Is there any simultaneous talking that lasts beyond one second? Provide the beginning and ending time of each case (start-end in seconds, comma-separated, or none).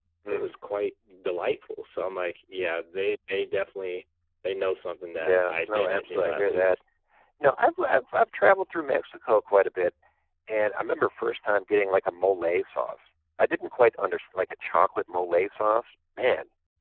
5.2-6.8